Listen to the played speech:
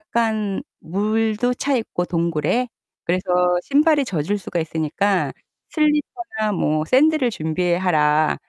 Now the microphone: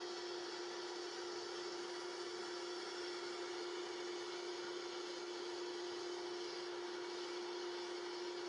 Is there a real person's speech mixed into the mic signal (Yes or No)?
No